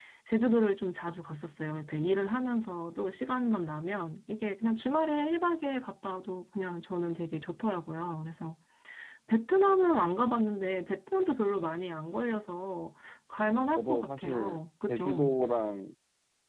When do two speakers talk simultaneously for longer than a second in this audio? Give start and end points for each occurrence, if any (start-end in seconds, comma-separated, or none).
13.8-15.3